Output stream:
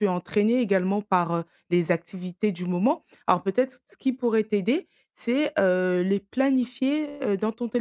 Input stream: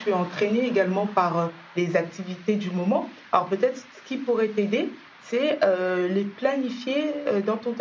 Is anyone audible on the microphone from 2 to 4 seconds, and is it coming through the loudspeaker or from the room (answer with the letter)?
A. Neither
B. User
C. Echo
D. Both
C